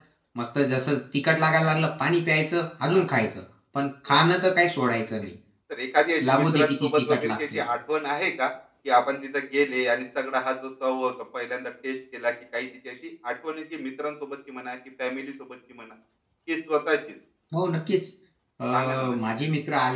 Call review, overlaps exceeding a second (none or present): present